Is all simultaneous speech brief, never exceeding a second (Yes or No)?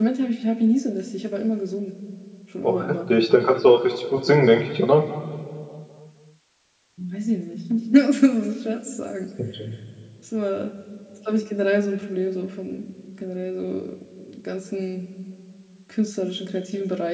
Yes